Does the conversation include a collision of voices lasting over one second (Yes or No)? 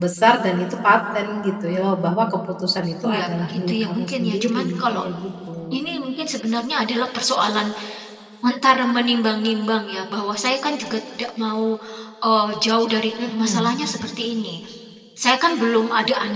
Yes